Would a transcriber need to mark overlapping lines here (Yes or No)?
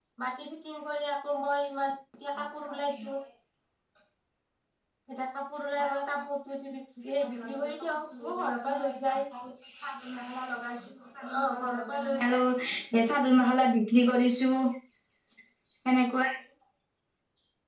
Yes